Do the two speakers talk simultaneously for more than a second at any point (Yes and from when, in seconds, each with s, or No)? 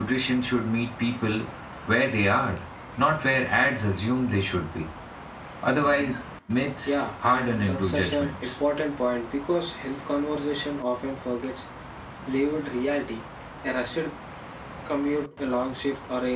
Yes, from 6.8 s